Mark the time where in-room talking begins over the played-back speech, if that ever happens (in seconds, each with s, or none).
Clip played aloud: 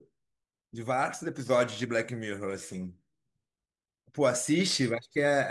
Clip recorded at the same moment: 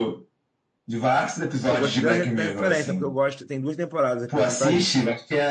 1.7 s